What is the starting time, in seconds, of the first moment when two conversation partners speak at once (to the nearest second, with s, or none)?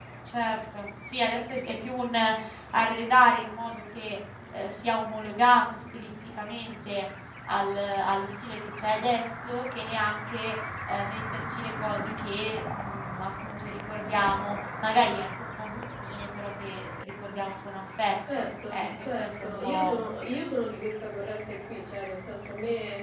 18 s